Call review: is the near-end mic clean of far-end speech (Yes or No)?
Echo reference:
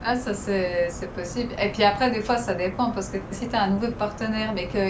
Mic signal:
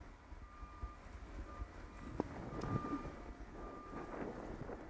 Yes